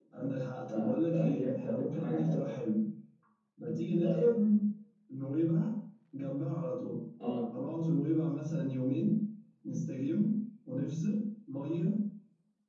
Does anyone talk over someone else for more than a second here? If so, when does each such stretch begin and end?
0.7-2.5

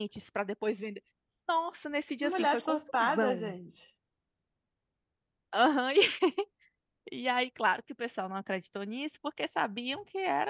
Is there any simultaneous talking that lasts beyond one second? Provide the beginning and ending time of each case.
2.2-3.5

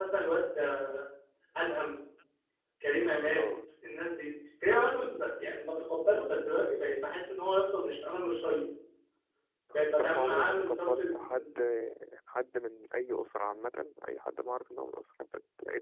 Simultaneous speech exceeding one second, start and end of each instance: 9.7-11.5

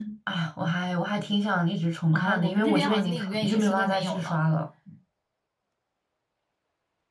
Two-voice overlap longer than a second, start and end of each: 2.1-4.4

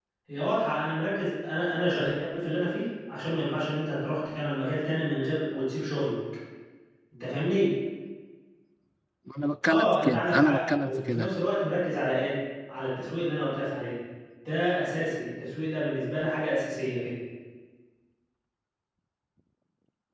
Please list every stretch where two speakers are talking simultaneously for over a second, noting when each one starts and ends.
9.7-11.4

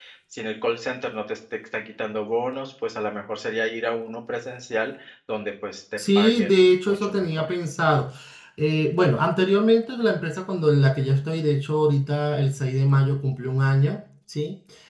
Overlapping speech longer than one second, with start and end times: 6.2-7.5

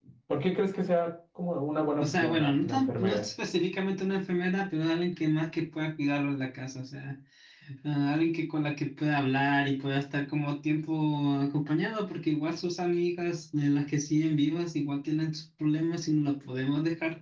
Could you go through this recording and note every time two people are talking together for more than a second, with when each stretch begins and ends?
2.0-3.3

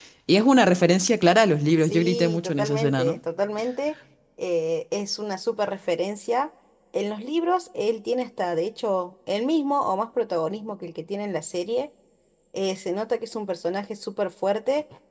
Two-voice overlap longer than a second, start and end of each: 1.8-3.2

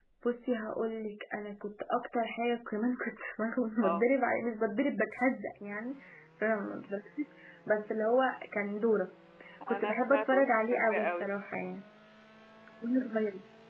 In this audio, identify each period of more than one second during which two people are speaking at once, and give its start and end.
9.7-11.4

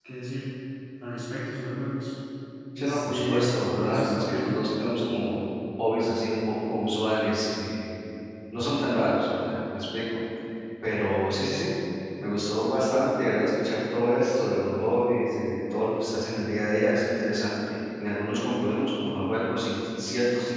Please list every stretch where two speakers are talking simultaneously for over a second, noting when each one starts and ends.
2.8-4.6

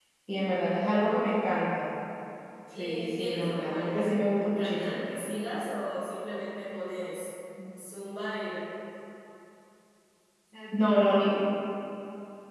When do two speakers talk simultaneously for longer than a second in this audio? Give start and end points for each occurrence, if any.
2.8-5.0

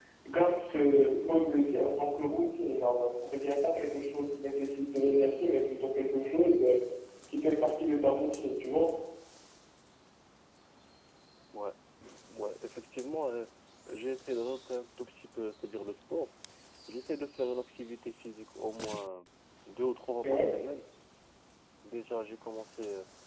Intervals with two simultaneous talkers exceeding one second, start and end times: none

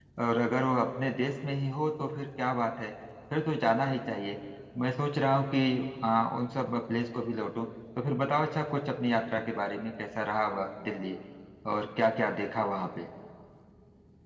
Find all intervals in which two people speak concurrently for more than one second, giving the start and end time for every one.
none

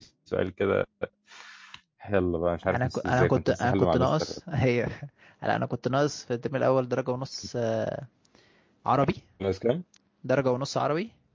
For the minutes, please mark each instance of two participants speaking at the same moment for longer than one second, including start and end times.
2.6-4.3

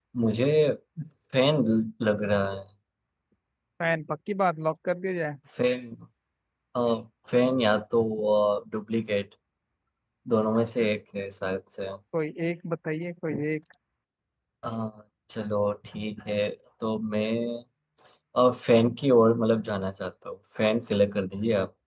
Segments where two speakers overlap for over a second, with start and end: none

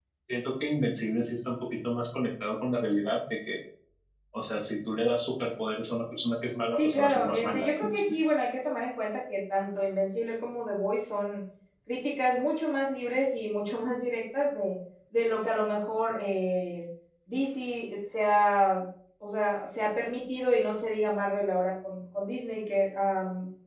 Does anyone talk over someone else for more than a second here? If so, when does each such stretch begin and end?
6.8-8.0

